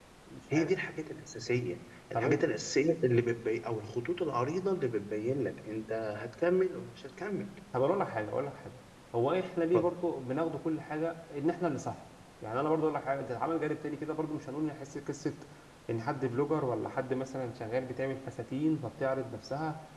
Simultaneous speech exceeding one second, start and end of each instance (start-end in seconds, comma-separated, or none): none